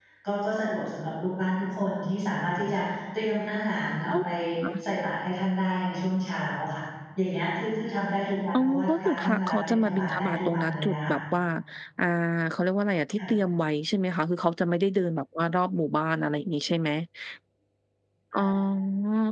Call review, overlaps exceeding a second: present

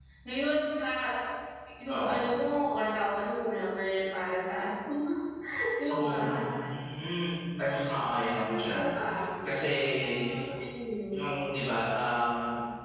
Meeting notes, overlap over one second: none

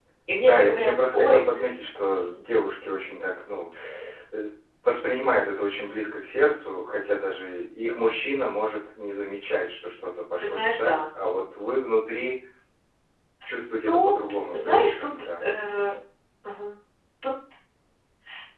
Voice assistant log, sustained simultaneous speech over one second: present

